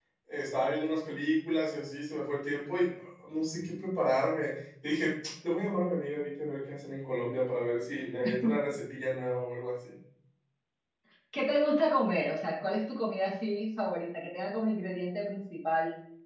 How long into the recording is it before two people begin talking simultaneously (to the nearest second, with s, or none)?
none